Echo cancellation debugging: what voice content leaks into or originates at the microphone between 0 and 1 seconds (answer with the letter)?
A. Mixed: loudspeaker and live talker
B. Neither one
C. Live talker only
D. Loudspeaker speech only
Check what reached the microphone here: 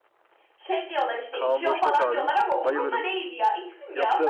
D